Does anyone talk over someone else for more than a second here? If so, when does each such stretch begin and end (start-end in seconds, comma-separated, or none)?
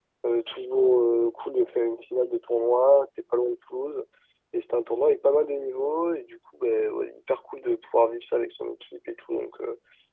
none